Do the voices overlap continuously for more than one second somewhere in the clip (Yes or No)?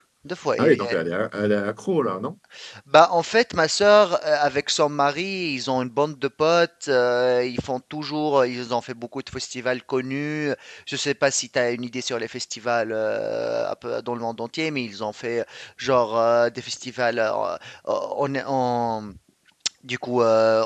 No